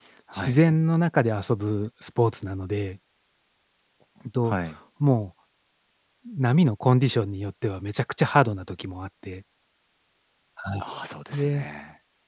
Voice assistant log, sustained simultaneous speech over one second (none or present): none